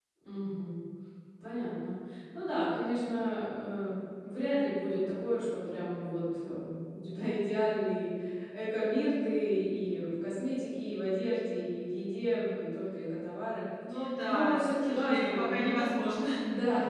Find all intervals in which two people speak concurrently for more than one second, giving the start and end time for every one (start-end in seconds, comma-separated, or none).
14.2-15.5